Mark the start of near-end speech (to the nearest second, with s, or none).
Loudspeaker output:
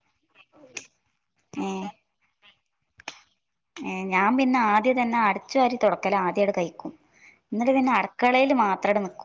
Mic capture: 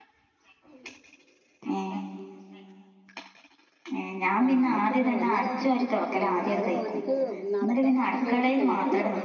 4 s